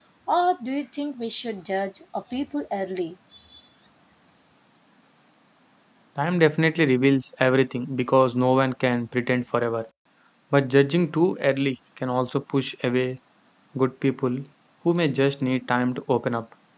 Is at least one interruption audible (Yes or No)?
No